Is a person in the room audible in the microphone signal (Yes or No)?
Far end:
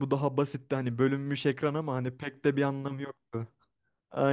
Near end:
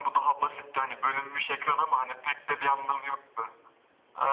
No